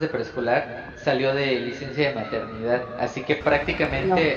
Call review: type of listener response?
listening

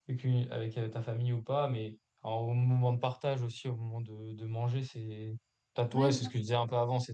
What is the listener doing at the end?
listening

